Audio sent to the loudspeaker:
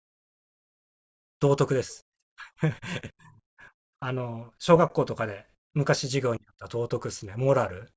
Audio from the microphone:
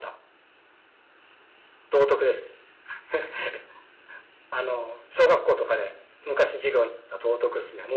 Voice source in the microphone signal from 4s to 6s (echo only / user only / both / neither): echo only